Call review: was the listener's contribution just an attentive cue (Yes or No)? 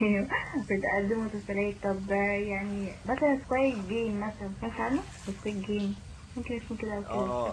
No